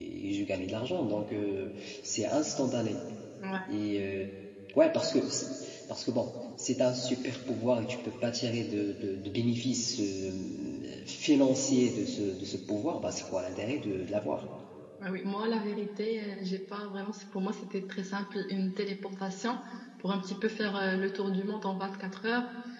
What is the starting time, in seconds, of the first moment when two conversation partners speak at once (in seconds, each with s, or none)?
none